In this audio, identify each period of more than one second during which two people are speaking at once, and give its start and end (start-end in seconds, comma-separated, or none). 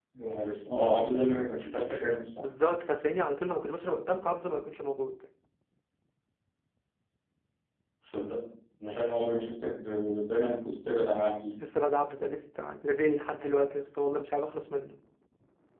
none